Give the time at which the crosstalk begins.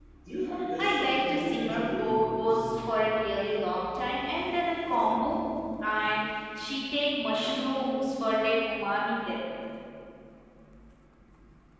0.8 s

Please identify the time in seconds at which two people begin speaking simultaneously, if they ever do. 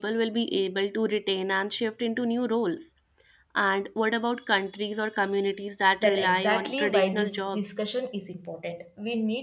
6.0 s

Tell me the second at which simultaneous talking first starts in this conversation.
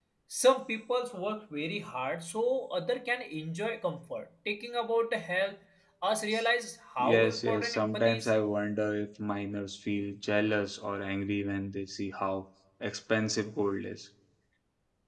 7.1 s

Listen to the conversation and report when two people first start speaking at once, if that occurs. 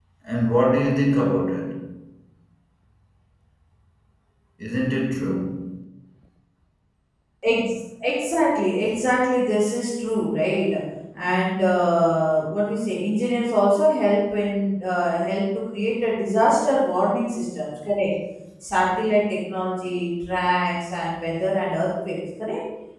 none

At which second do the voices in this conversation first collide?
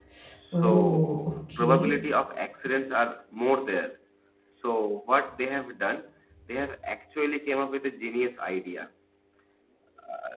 0.5 s

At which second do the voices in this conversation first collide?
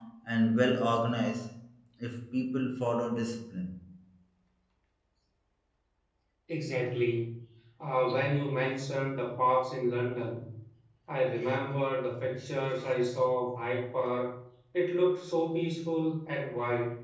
none

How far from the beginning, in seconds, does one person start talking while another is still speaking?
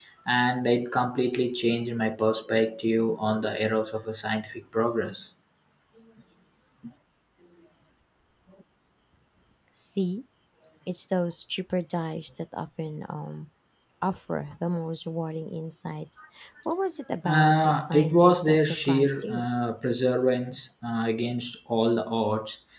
17.2 s

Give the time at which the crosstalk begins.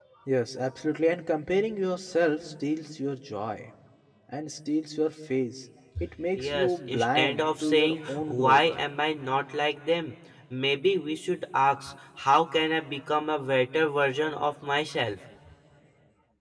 6.4 s

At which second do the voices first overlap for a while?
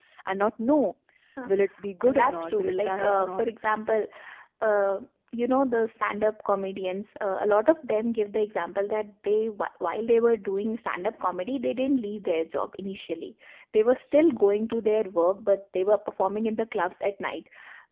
2.1 s

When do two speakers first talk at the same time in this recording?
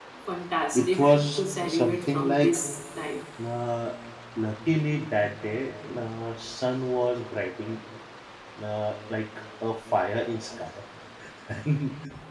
0.7 s

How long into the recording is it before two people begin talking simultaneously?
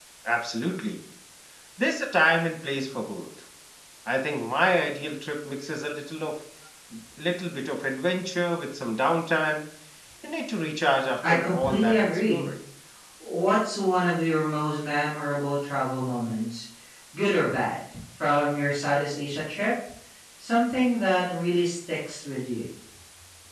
11.2 s

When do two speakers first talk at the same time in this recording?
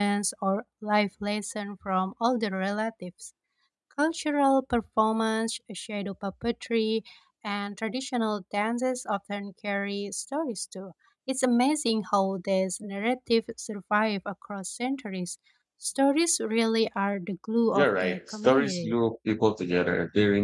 17.7 s

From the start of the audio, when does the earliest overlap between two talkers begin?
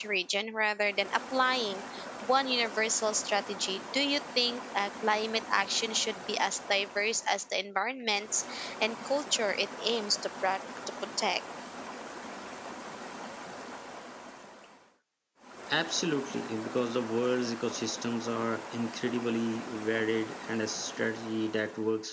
none

